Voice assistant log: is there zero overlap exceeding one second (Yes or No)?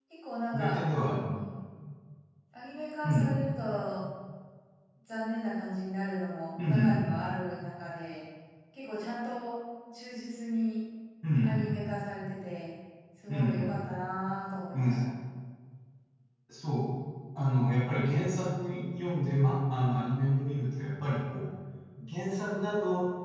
Yes